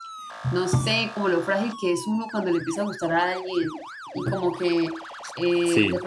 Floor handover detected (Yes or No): No